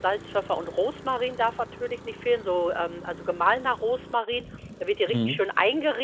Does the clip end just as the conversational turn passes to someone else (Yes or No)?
No